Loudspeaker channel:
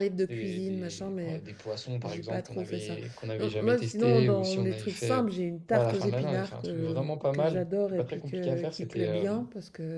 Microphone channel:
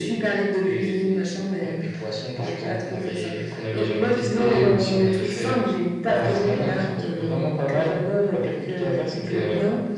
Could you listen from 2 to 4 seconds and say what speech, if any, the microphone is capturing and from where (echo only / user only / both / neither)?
echo only